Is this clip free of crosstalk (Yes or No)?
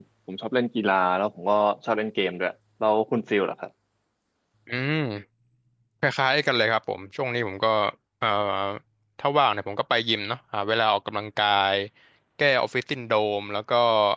Yes